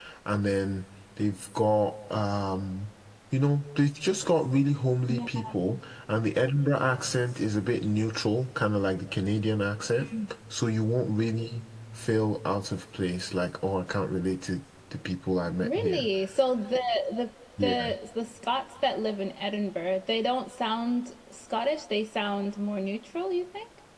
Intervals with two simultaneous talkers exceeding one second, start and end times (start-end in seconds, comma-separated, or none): none